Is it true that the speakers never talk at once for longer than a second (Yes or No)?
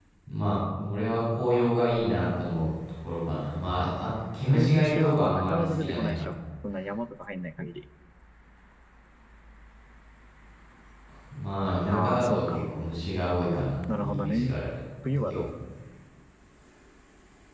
No